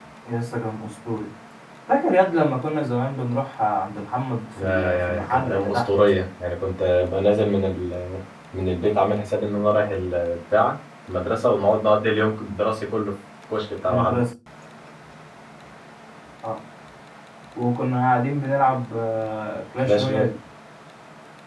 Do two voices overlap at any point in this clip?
Yes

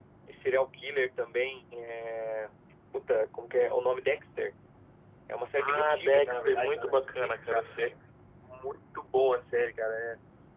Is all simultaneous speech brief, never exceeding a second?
No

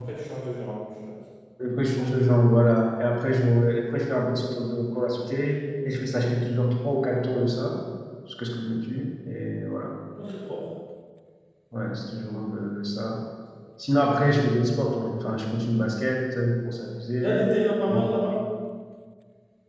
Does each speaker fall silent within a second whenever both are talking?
Yes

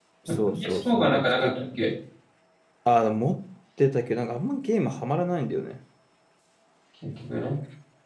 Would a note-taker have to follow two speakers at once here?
Yes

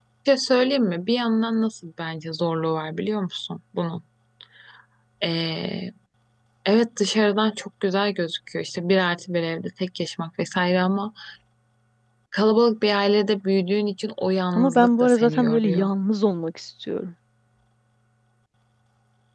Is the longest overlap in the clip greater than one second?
Yes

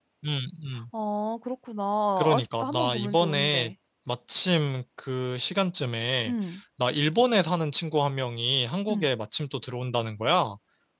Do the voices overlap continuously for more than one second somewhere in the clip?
Yes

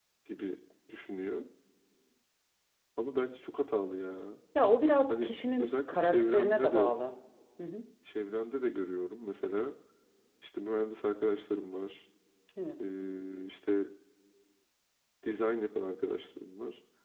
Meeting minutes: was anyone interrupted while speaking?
Yes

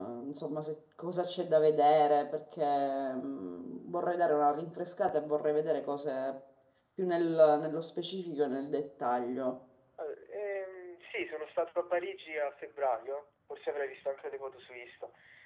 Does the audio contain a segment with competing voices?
No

